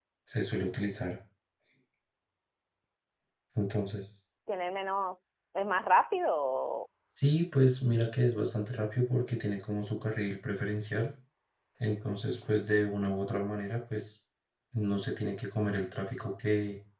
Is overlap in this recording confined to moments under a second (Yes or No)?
Yes